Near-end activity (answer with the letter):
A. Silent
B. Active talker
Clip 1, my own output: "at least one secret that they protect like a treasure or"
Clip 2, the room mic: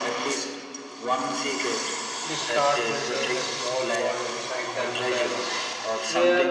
B